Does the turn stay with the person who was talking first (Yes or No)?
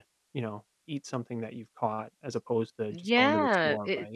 No